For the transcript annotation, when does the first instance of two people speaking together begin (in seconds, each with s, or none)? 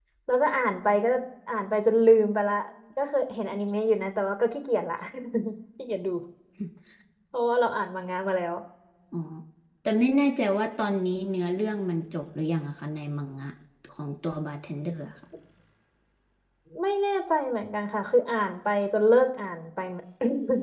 none